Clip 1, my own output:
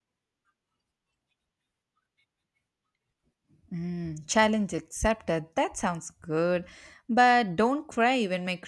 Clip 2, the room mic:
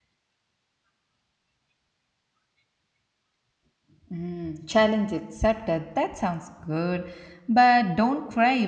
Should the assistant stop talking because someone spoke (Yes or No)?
No